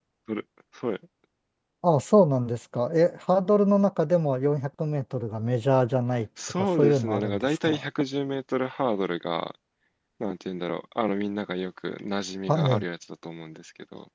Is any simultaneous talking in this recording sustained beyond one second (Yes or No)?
Yes